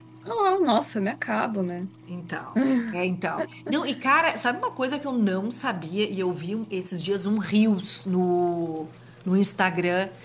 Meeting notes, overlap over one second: none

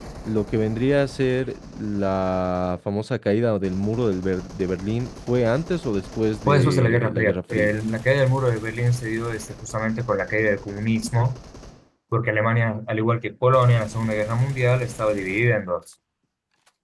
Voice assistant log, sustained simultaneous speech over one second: present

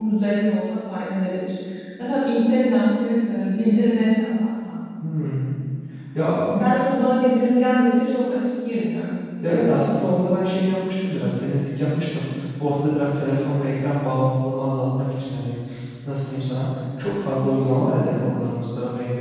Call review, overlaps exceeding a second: none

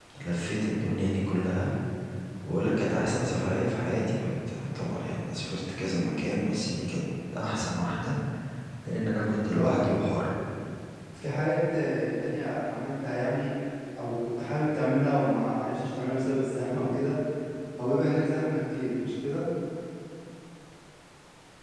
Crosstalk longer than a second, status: none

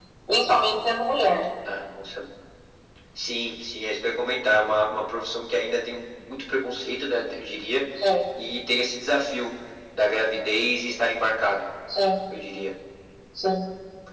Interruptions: none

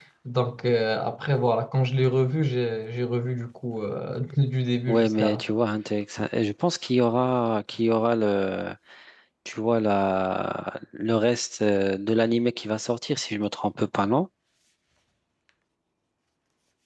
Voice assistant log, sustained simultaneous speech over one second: none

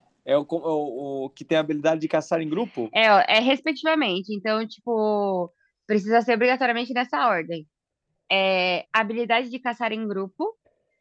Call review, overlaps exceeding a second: none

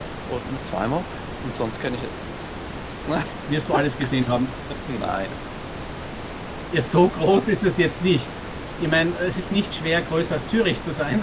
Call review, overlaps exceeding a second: none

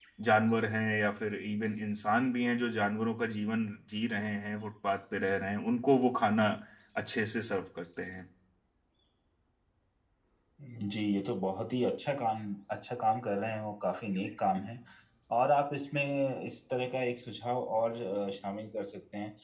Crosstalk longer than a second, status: none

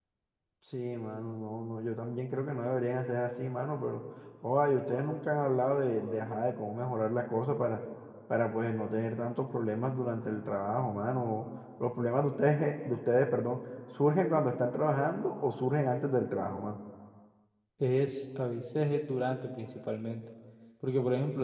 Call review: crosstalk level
none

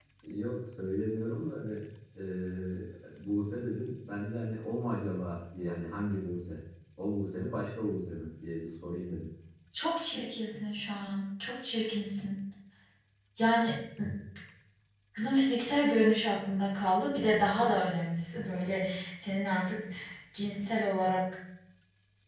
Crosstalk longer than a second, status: none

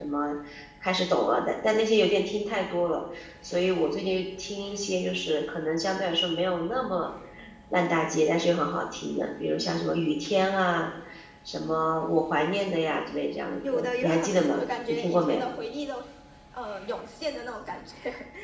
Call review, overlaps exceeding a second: present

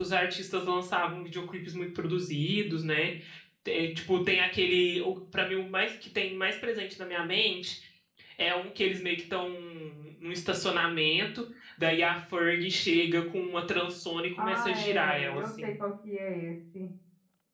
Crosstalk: present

